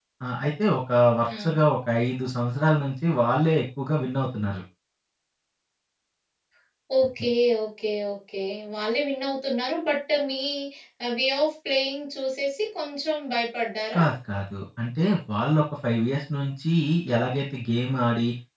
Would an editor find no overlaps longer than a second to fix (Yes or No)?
Yes